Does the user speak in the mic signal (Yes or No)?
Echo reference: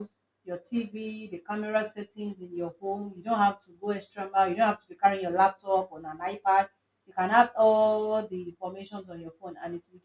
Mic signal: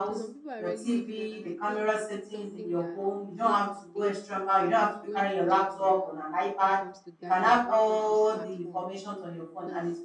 Yes